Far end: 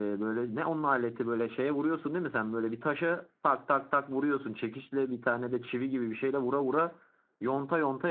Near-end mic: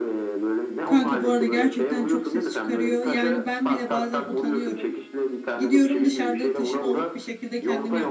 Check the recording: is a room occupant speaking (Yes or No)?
Yes